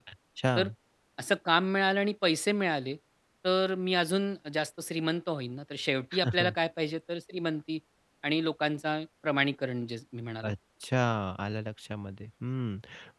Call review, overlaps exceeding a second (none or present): none